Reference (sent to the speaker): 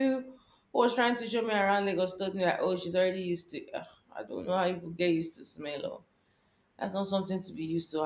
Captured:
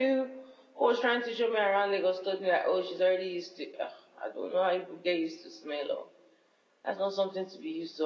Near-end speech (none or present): none